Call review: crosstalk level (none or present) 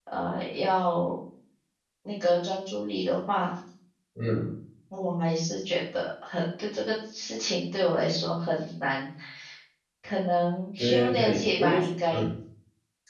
present